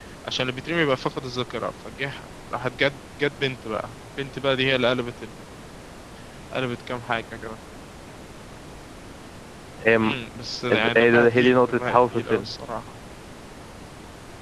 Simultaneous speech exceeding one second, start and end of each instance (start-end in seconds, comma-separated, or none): 11.0-12.5